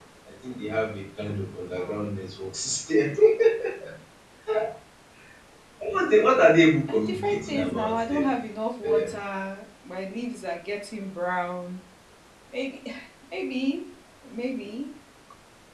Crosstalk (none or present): present